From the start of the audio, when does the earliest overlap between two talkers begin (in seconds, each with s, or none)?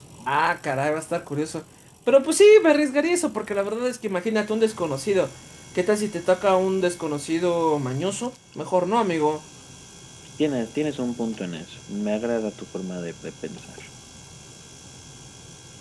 none